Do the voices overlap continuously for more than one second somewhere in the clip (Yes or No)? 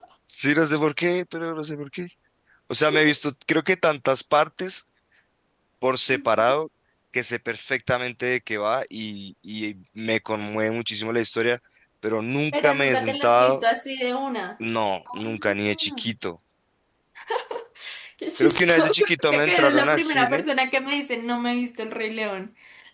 Yes